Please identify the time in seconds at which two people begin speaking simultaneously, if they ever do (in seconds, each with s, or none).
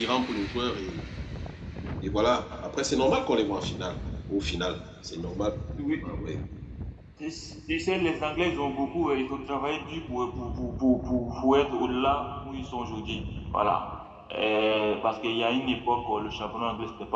none